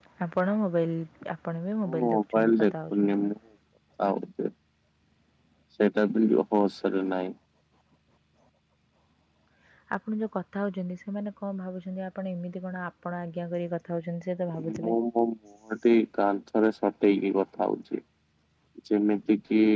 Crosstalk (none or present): present